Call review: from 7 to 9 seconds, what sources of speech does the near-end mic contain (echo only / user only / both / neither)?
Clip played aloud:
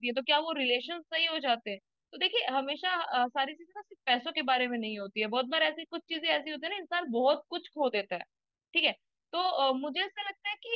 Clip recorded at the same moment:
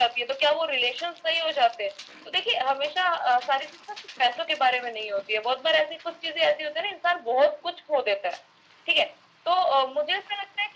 echo only